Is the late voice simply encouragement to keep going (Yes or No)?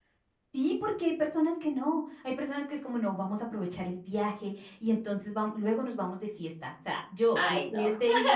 Yes